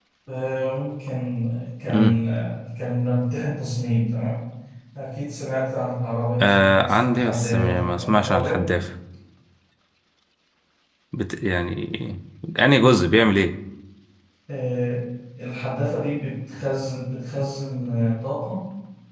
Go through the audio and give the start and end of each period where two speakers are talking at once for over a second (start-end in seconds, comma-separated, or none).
6.4-8.6